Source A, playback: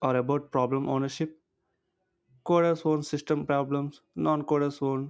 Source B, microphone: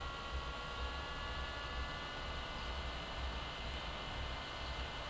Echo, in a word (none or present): none